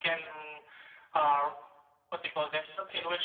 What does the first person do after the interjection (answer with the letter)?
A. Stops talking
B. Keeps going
A